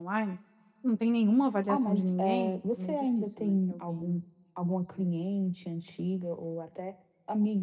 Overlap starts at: 2 s

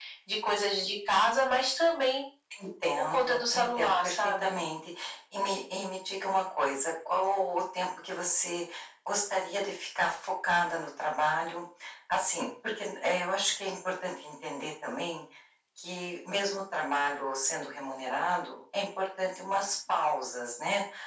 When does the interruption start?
3 s

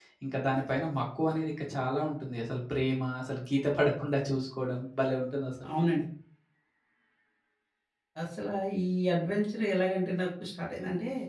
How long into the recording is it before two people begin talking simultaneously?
none

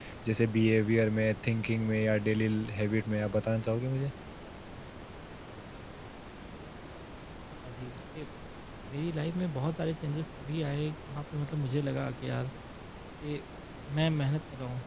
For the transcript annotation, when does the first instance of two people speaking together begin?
none

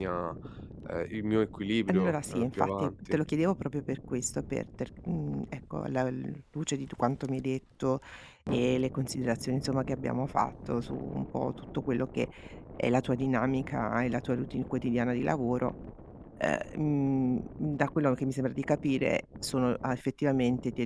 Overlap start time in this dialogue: 2 s

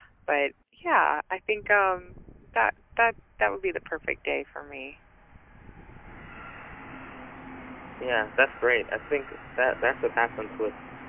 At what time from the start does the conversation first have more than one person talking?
none

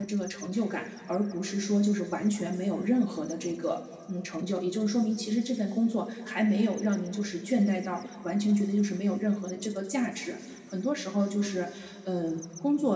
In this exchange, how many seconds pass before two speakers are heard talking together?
none

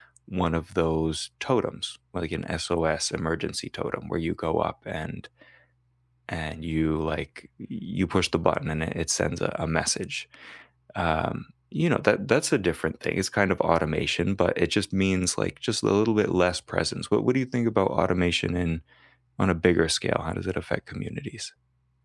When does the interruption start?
none

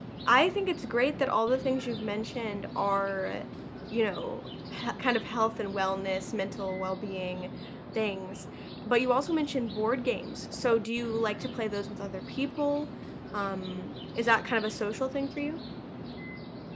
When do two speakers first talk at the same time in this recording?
none

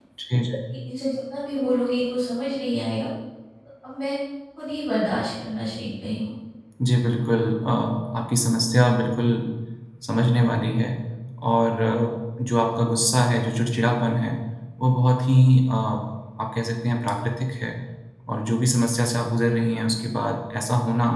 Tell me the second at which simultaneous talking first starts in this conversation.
none

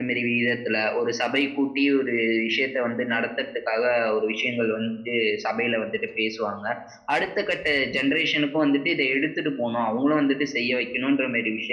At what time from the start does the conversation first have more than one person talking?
none

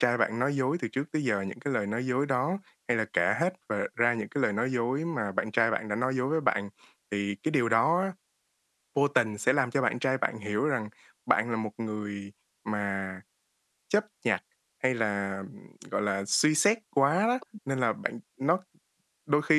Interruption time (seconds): none

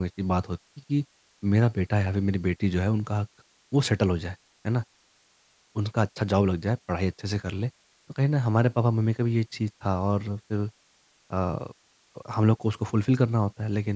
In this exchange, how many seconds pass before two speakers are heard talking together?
none

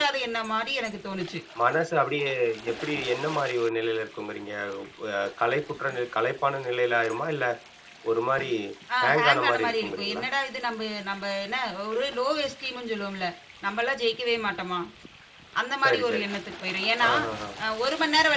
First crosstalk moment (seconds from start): 9 s

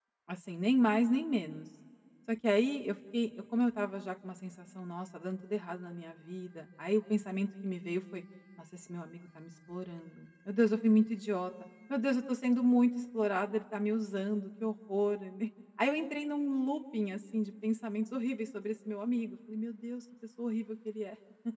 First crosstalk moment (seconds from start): none

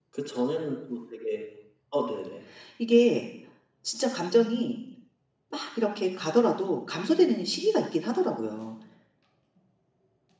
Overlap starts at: none

